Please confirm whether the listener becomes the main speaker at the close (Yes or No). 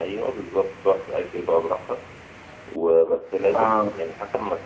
No